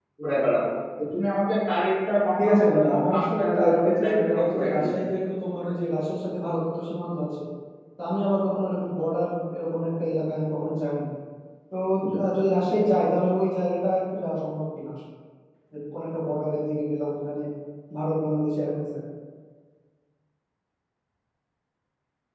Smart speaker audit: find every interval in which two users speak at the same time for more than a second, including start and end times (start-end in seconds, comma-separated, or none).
2.4-5.0